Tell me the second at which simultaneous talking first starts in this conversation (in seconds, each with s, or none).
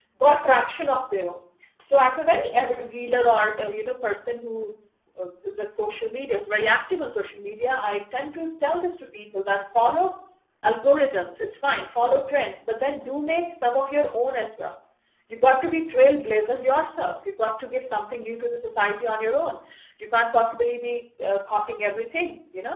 none